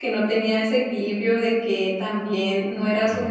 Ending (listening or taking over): listening